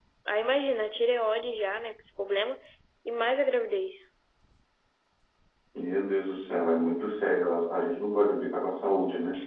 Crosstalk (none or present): none